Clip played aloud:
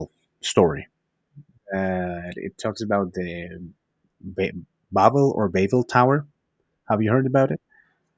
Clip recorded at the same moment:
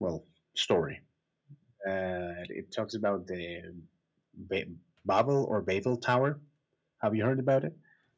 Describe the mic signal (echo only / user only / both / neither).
echo only